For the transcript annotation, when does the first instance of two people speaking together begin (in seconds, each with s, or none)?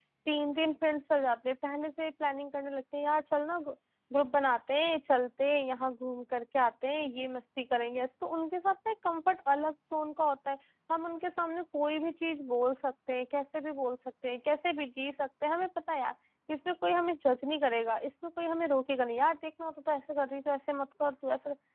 none